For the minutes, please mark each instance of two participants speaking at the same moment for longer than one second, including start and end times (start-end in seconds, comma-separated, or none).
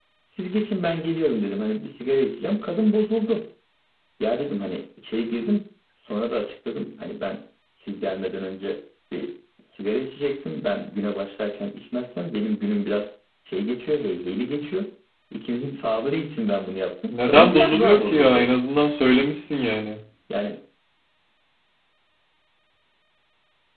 17.2-18.5